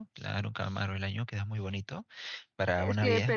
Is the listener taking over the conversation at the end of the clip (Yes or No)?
Yes